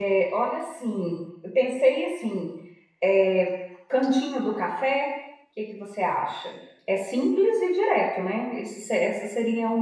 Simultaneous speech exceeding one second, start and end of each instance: none

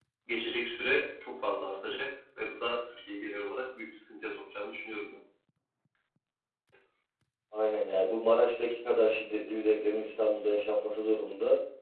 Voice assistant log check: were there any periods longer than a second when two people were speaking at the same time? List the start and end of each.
none

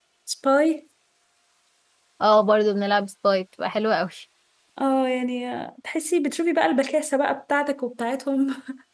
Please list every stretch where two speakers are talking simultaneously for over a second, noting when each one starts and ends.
none

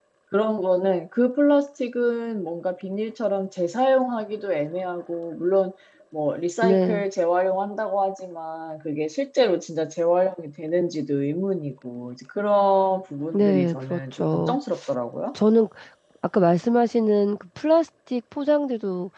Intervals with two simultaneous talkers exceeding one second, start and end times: 13.3-14.6

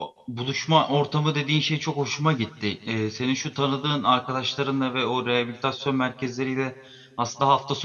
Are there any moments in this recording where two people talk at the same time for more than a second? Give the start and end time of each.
none

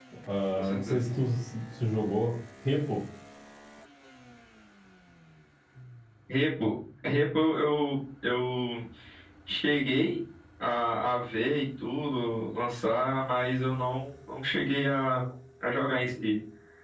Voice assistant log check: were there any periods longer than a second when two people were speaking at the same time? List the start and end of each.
none

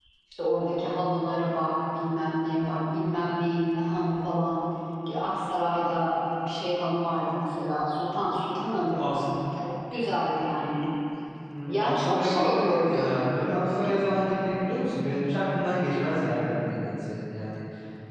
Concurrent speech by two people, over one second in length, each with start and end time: 11.7-13.2

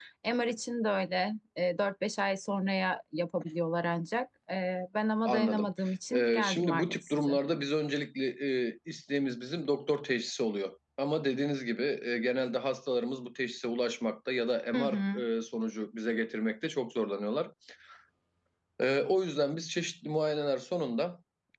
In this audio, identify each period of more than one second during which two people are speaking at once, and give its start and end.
6.1-7.4

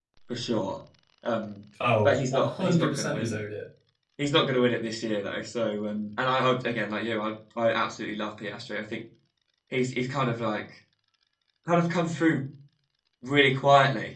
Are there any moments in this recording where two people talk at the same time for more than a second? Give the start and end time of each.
2.0-3.3

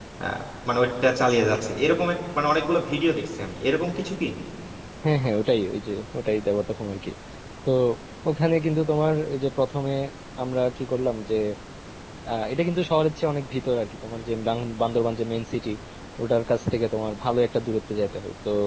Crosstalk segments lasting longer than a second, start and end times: none

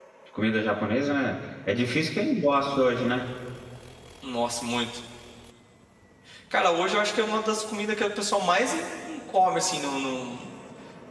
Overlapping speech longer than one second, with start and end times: none

